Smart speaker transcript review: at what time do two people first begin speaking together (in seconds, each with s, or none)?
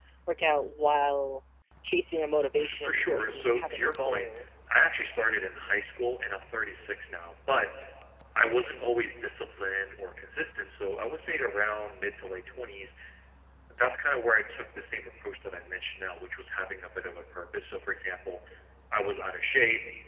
2.6 s